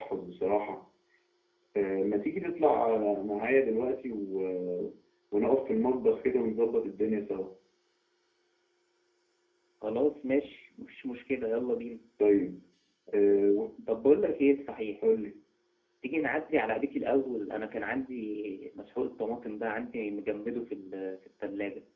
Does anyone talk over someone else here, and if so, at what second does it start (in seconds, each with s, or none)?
none